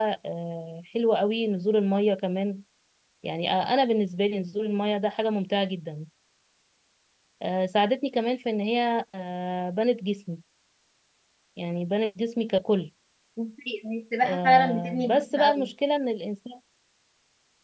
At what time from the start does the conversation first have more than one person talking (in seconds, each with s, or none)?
14.2 s